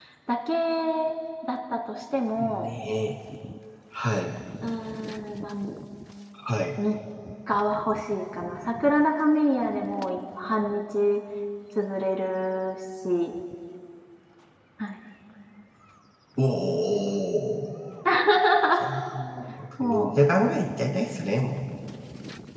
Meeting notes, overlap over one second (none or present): none